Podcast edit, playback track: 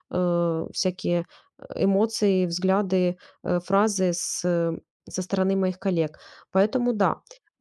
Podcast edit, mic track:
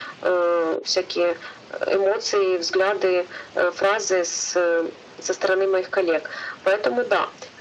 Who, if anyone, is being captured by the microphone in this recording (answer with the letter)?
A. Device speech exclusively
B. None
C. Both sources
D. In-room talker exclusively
A